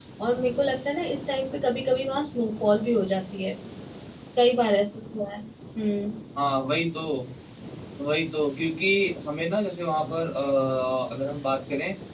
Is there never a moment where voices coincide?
Yes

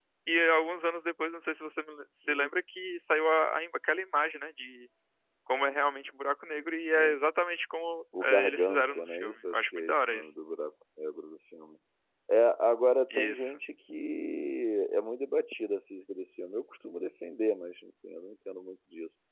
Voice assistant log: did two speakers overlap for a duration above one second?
Yes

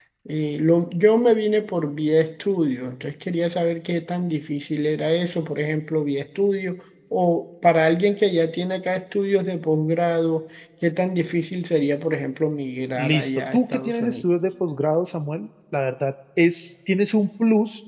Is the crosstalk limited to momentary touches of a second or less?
No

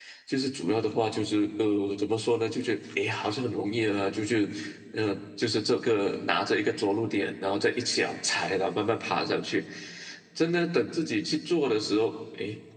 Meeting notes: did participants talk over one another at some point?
No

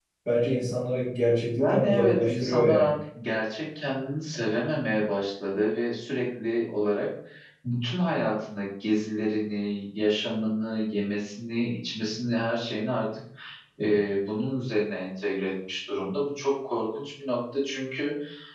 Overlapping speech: Yes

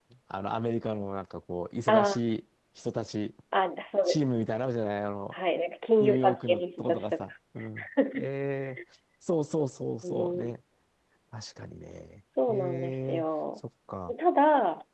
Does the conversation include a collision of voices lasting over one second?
Yes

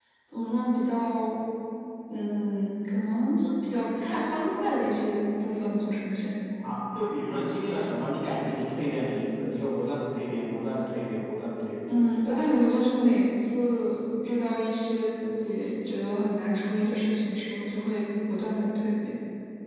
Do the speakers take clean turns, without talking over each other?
Yes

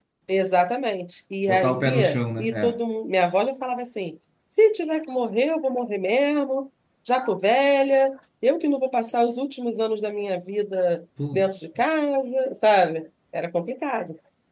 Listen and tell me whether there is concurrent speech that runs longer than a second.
Yes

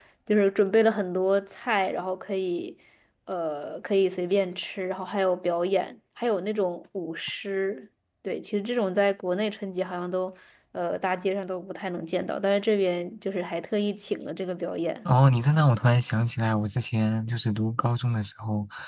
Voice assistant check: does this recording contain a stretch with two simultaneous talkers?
No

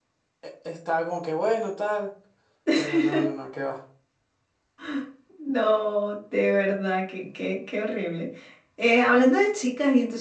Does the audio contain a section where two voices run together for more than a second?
No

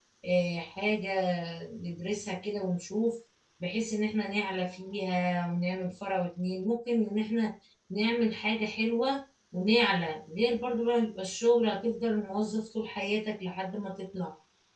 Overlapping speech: No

